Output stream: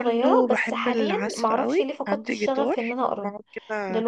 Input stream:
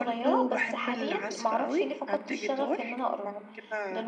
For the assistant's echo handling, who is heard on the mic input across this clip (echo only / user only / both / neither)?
echo only